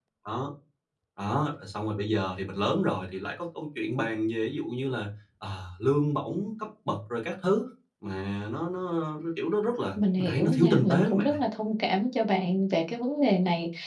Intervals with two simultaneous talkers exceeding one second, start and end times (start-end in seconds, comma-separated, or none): 10.2-11.4